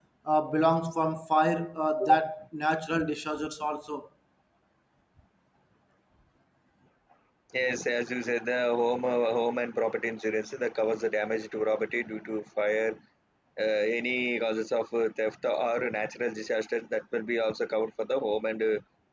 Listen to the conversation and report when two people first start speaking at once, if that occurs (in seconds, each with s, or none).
none